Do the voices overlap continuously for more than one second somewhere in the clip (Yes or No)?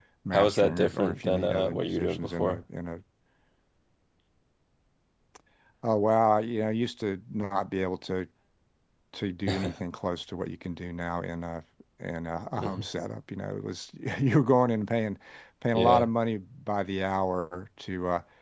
Yes